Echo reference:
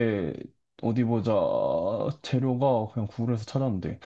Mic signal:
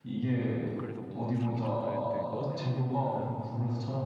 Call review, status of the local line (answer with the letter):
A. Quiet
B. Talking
B